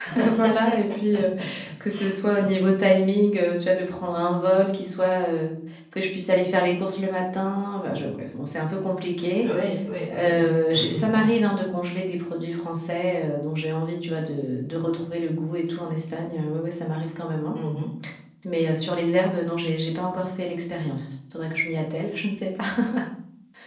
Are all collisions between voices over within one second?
Yes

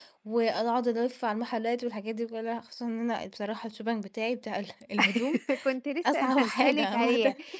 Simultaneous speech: Yes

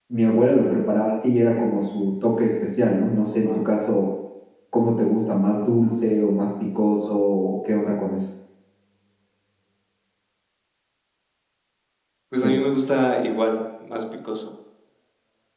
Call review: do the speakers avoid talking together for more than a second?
Yes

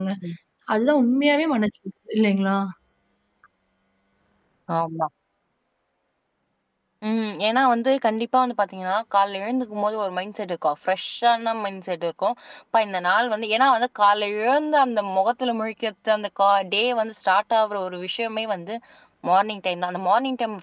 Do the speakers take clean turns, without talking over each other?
Yes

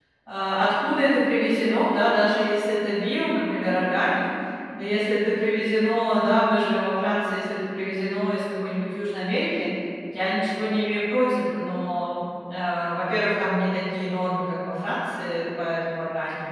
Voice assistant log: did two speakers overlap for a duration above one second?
No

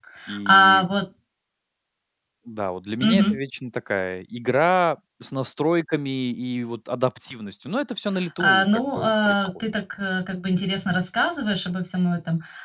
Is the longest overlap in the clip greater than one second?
Yes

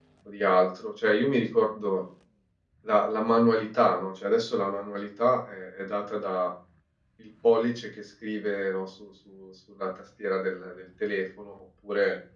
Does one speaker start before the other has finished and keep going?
No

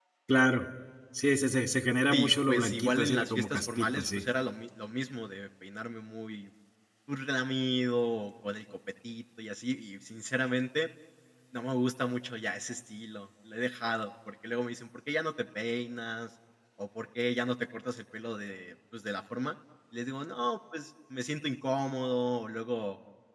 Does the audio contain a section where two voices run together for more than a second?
Yes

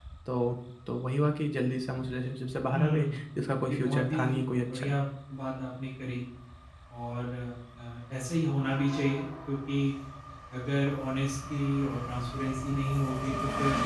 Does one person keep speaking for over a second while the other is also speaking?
Yes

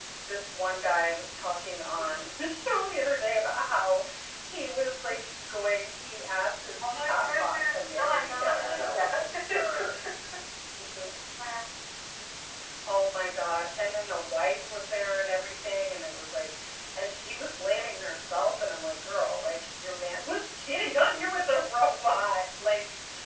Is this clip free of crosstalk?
No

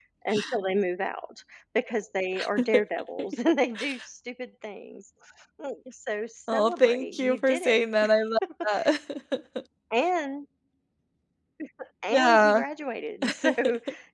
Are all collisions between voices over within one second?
No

